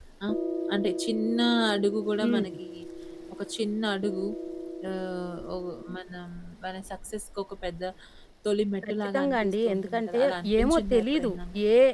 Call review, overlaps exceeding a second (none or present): present